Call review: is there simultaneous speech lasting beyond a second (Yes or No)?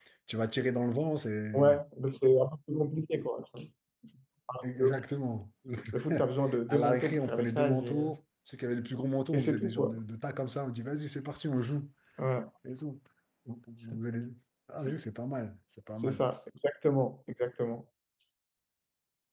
Yes